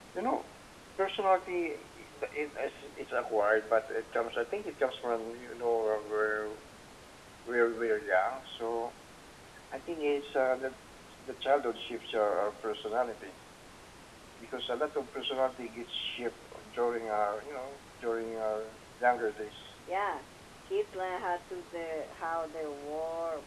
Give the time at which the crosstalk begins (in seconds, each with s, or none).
none